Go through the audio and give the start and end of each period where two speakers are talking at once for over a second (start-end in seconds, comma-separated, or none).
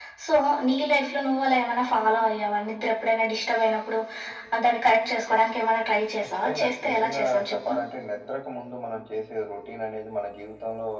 6.2-7.7